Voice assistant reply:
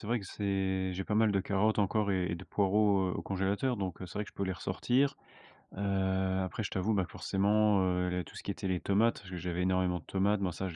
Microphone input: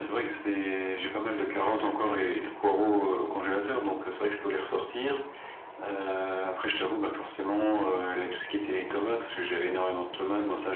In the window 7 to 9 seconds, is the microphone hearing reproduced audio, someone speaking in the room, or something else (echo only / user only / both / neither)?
echo only